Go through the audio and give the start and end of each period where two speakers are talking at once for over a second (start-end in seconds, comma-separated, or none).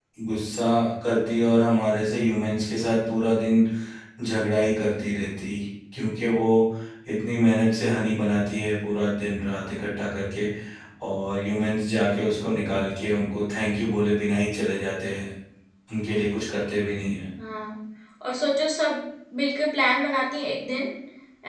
none